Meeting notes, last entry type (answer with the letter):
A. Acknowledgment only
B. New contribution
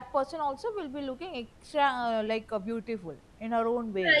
B